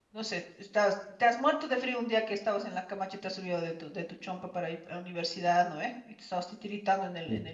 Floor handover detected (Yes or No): No